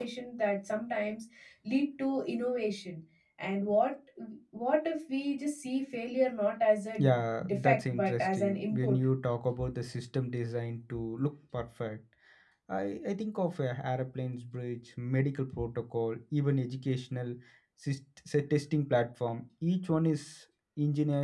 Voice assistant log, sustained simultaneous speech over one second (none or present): present